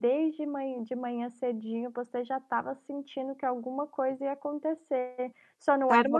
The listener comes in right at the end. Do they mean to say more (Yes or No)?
No